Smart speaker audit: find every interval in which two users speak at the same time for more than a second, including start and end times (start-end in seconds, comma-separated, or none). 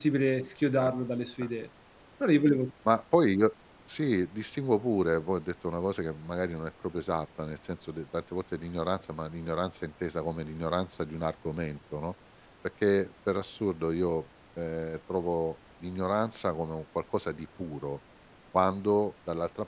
none